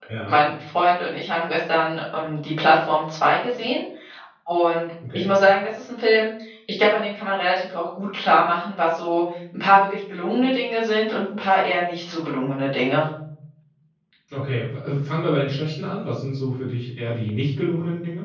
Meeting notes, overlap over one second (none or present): none